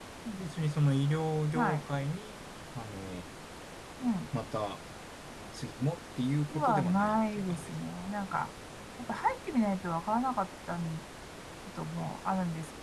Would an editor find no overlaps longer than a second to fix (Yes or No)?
No